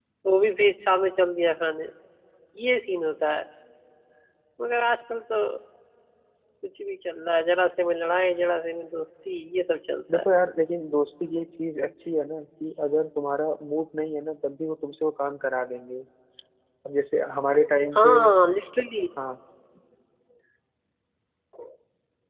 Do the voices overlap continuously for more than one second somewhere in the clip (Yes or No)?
No